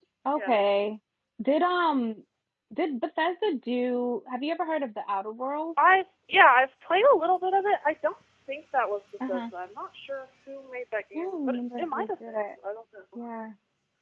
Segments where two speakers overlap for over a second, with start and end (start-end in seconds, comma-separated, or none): 11.2-12.4